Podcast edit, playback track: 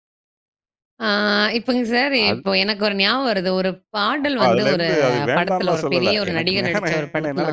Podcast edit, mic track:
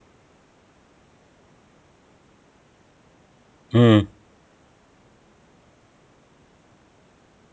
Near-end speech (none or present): present